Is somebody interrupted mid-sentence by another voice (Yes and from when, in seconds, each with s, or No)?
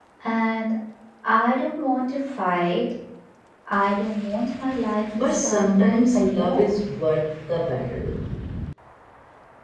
Yes, from 5.1 s